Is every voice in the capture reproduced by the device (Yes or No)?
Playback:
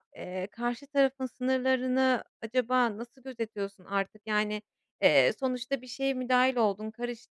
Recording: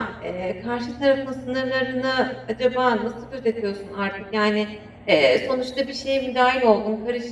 Yes